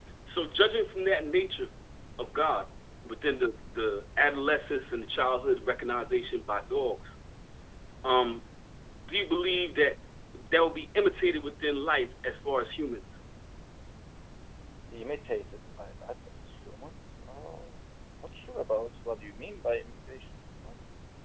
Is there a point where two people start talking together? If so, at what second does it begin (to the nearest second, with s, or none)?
none